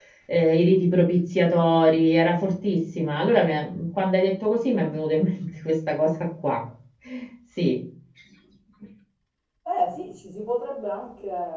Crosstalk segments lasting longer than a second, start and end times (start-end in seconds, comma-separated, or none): none